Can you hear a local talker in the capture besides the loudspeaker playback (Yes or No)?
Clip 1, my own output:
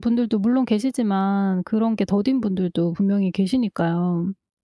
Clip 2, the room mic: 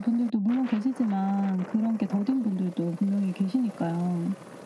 No